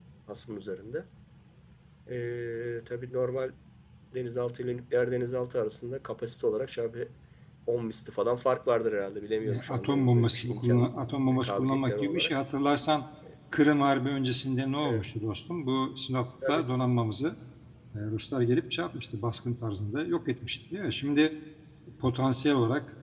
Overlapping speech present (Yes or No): Yes